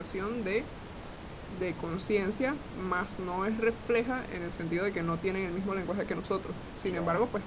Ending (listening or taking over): listening